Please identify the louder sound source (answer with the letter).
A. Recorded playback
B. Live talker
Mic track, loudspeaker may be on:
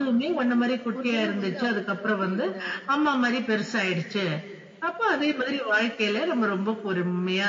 A